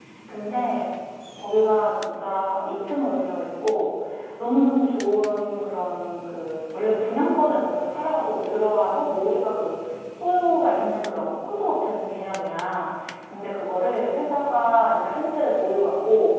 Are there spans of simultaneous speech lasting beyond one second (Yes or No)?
No